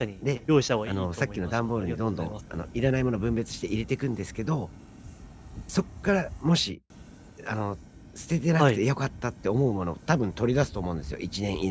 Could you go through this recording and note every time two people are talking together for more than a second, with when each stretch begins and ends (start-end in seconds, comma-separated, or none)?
0.9-2.3